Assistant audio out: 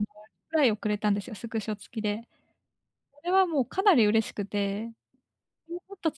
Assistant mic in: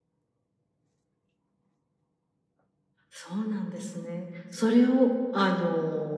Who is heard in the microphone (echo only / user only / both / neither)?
user only